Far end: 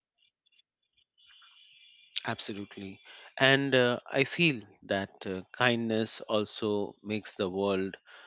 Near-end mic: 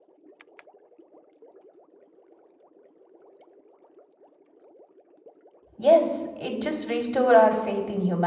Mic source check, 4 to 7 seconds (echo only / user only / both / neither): user only